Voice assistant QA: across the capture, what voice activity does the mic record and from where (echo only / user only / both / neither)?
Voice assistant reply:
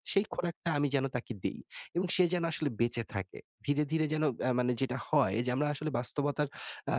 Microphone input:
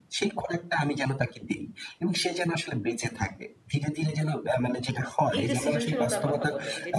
both